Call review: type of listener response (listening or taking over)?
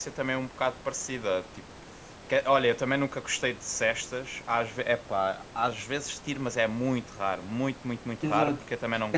taking over